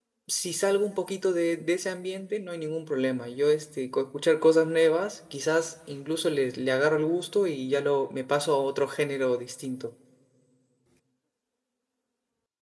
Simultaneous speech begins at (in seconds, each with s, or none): none